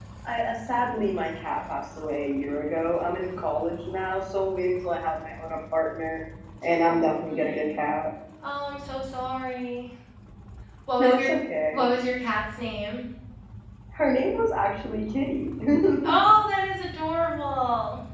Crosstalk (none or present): present